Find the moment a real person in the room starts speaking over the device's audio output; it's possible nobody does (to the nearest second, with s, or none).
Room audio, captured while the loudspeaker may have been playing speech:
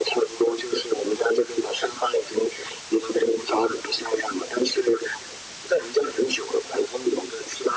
none